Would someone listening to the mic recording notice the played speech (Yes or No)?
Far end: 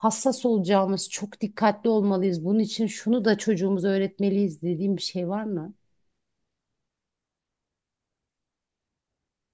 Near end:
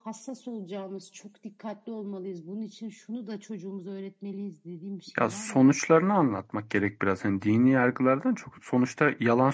Yes